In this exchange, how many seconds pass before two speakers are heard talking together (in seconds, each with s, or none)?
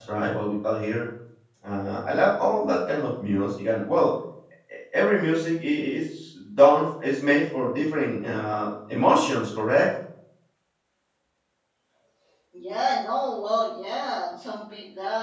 none